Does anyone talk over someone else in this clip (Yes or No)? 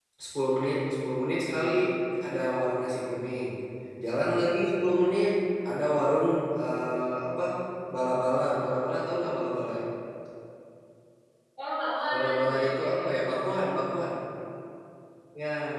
Yes